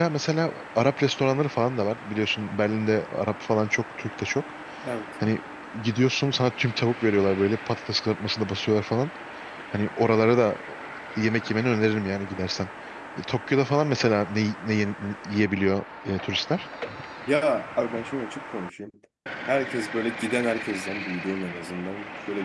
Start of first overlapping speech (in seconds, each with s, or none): none